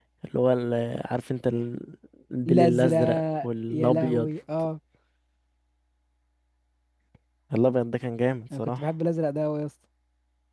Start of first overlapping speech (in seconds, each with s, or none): 2.5 s